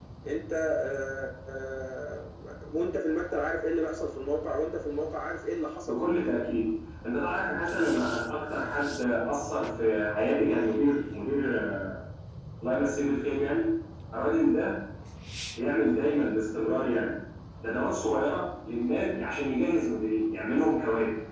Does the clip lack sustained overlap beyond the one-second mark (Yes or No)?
Yes